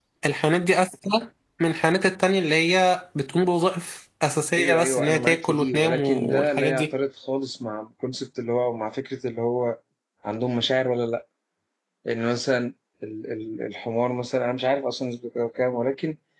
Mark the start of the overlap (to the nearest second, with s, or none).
5 s